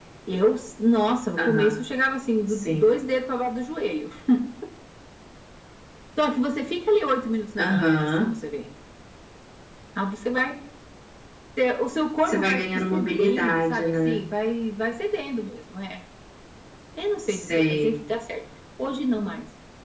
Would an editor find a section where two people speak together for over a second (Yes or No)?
Yes